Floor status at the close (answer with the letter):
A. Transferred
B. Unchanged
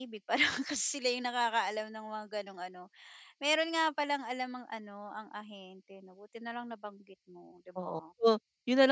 A